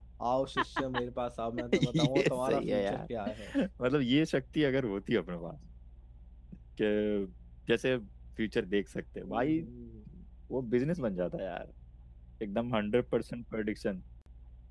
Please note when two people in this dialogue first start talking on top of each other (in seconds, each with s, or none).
1.7 s